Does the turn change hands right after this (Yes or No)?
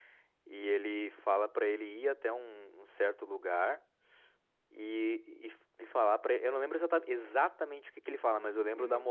No